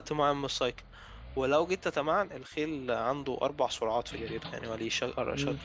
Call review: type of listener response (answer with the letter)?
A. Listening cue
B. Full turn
A